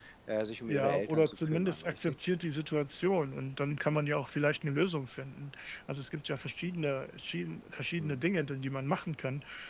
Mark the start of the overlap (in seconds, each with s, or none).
0.7 s